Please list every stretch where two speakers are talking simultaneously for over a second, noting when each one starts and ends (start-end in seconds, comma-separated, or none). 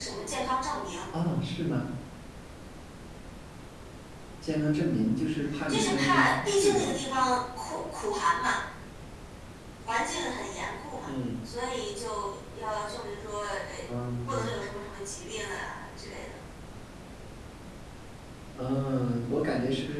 5.7-7.0